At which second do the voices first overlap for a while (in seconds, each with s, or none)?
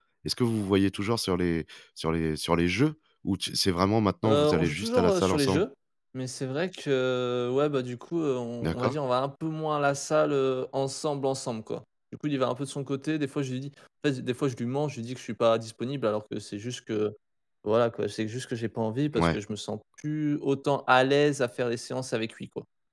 4.2 s